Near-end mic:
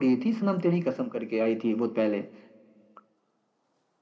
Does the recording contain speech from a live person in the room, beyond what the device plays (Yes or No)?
No